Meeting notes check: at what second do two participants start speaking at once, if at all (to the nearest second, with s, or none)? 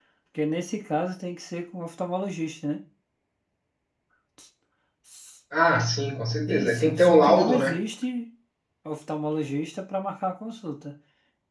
6 s